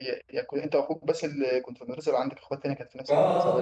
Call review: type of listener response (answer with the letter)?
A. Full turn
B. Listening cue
A